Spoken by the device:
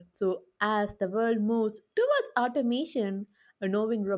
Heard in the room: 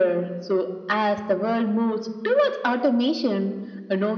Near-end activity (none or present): none